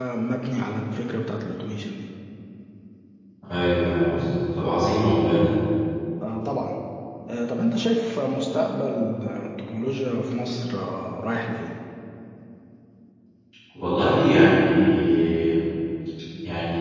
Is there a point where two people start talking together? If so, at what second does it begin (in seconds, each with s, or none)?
none